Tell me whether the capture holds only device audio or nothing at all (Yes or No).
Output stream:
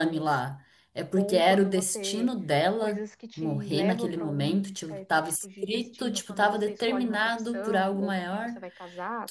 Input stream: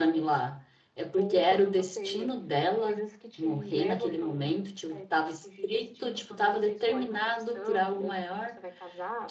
Yes